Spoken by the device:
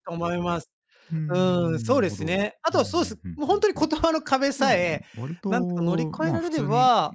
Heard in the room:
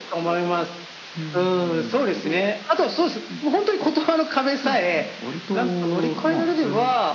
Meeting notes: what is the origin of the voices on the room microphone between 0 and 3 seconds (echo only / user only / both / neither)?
echo only